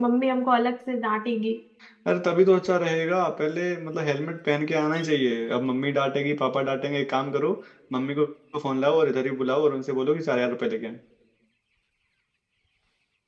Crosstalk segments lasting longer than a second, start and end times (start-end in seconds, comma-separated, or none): none